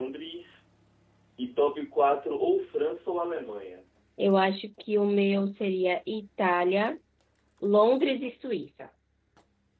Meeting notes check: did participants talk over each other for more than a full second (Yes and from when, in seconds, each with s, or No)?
No